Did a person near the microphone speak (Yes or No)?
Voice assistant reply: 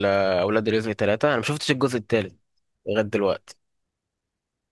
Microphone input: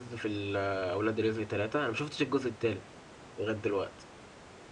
No